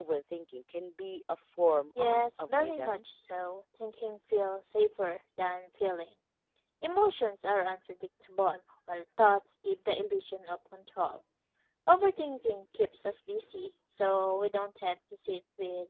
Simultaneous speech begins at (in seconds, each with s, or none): 2.0 s